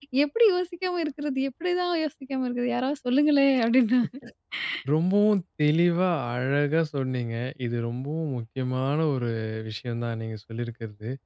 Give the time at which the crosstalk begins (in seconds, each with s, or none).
none